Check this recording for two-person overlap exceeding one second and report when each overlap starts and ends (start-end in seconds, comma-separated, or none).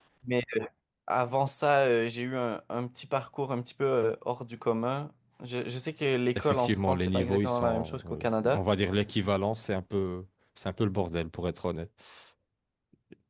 6.3-8.6